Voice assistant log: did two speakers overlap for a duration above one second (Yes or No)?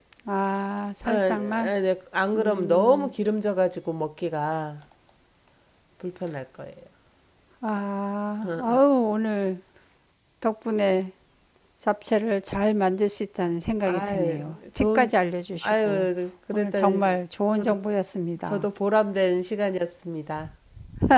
Yes